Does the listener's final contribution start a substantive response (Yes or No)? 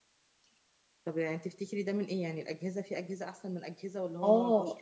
Yes